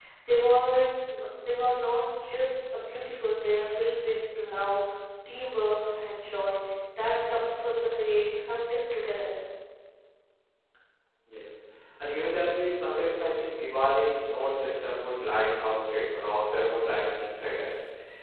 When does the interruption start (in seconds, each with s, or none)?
none